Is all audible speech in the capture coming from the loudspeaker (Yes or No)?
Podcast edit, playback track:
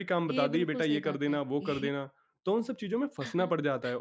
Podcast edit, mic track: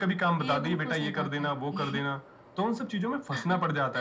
Yes